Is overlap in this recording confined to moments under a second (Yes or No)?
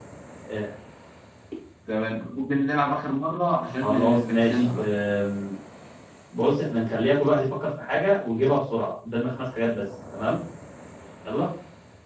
No